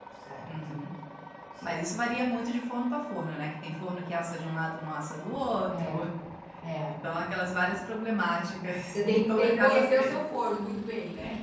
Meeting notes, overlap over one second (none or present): present